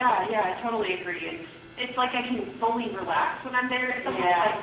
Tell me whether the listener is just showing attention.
Yes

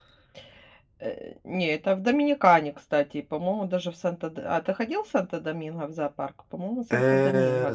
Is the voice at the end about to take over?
Yes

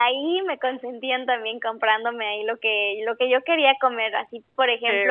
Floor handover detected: No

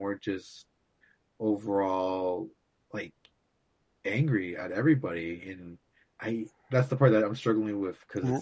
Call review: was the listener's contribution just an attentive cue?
Yes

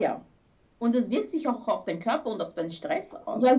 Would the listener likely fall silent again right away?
No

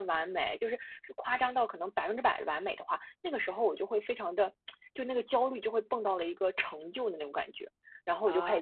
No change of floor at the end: Yes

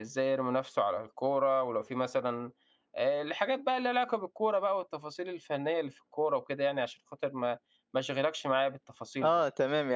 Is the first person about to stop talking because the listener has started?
Yes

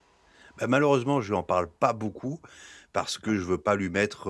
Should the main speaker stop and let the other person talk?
No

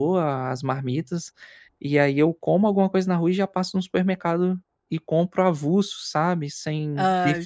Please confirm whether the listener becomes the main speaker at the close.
No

